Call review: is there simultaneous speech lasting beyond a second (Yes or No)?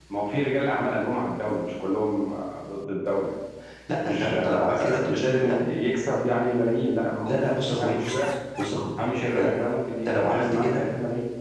Yes